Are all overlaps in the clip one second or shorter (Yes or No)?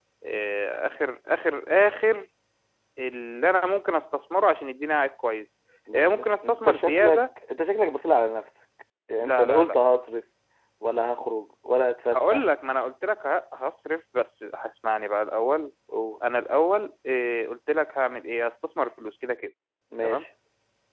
No